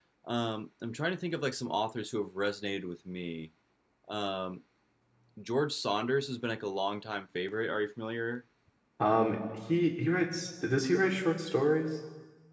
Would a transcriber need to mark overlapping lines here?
No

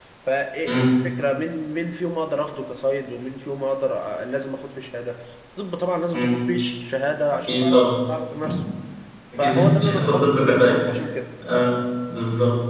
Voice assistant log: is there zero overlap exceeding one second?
No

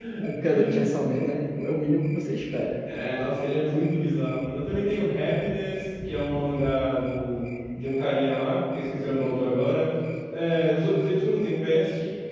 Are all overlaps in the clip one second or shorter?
Yes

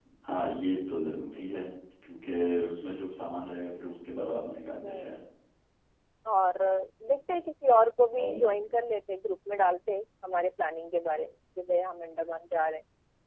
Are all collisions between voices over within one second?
Yes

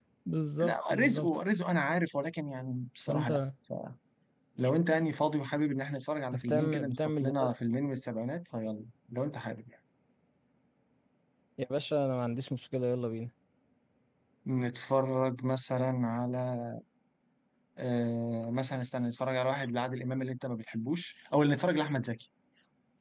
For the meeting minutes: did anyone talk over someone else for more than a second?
Yes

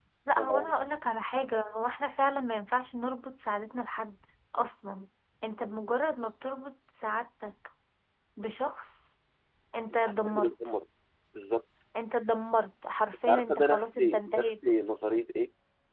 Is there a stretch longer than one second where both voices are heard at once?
Yes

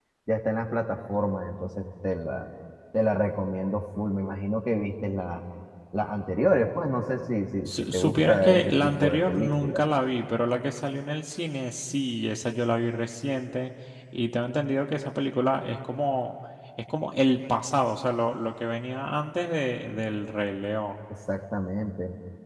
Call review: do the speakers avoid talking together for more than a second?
No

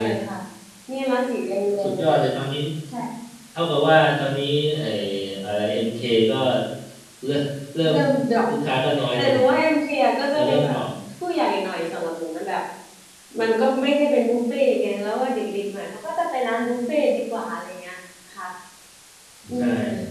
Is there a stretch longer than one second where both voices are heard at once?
No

